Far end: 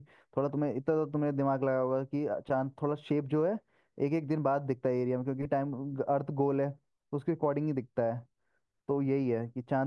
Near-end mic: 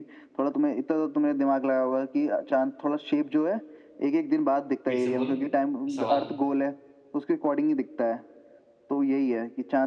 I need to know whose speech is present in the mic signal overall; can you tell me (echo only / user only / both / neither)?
both